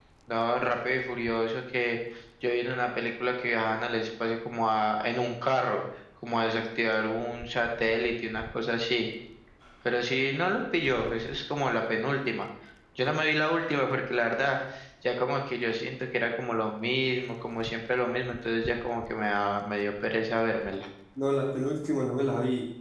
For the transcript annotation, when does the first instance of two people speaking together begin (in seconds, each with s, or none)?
none